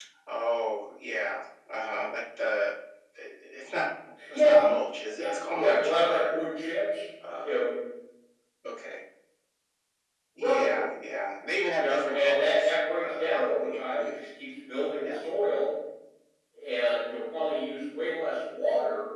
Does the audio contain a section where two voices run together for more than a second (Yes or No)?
Yes